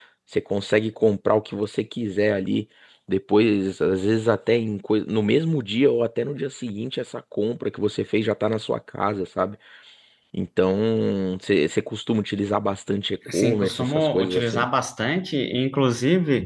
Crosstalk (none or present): present